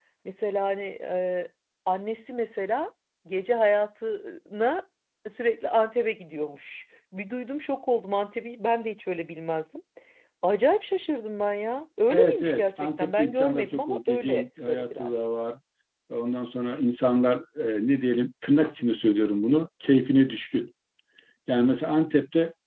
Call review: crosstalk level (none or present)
present